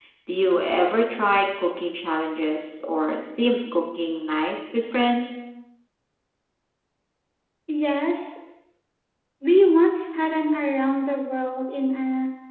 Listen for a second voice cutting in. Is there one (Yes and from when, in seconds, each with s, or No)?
No